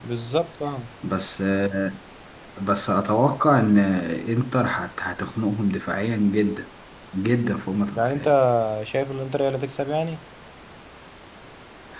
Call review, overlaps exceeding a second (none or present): none